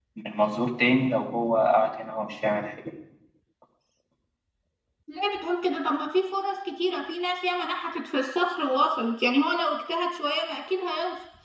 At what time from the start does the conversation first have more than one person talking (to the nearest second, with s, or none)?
none